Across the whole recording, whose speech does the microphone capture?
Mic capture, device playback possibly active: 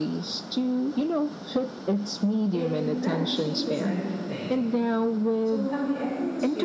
both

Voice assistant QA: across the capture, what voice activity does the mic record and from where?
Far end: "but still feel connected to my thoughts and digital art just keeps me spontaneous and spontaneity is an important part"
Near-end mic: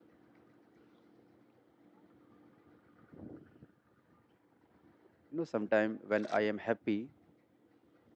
user only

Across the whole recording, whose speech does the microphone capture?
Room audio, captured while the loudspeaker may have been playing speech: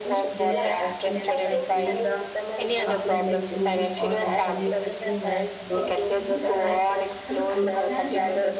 both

